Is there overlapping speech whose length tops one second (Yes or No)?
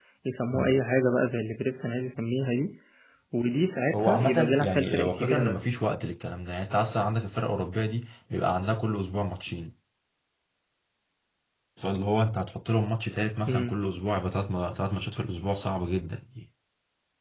Yes